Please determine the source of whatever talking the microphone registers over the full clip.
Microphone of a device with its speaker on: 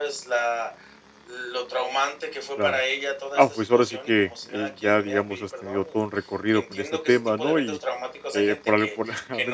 both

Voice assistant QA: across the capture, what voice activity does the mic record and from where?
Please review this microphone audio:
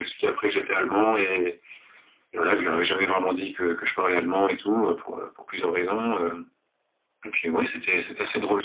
echo only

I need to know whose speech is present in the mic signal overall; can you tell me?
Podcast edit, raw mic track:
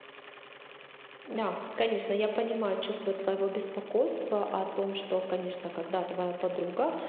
user only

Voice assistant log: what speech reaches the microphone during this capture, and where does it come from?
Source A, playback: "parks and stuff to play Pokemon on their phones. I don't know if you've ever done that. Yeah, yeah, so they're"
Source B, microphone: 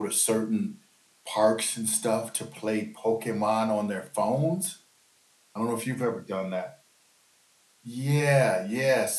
echo only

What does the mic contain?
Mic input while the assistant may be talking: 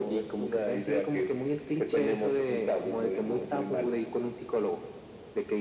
echo only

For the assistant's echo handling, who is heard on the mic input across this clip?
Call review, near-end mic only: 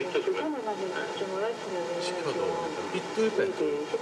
both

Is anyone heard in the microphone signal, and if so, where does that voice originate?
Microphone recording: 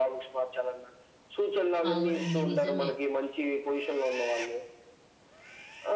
both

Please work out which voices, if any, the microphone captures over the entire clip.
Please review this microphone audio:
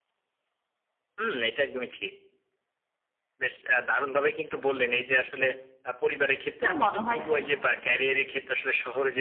both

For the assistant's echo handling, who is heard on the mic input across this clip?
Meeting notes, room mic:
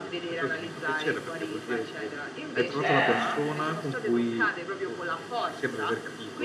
both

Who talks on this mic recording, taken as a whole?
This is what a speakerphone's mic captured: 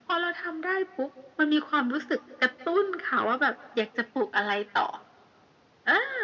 echo only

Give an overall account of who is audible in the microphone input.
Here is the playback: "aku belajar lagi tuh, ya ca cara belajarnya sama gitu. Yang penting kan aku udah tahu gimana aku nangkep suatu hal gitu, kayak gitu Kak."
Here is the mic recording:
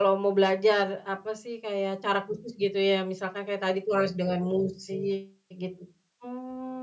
user only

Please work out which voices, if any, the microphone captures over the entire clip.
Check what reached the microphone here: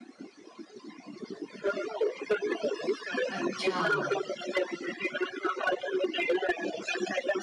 both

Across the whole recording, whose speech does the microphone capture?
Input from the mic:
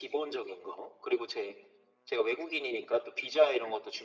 echo only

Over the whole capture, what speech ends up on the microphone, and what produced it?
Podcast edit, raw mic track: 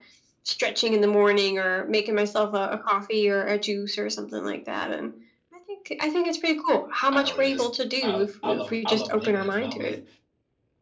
both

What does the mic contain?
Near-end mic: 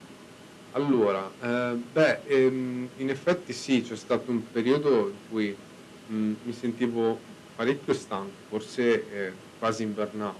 echo only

